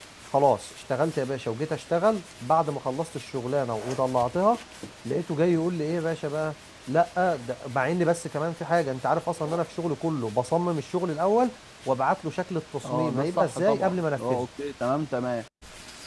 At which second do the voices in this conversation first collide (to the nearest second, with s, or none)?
13 s